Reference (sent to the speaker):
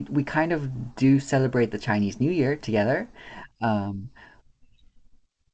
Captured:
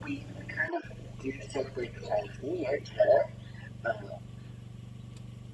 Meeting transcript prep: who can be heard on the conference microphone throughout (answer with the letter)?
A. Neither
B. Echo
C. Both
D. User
B